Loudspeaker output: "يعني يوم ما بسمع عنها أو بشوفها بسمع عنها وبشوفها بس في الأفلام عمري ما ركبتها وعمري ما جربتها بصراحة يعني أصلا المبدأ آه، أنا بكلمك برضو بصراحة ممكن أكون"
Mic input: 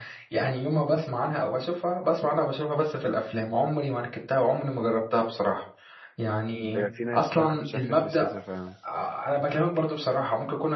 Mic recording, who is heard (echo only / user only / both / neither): both